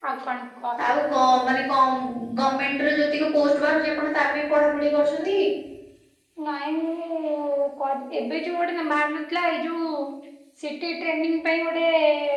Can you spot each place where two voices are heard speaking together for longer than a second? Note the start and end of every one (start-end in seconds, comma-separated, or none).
none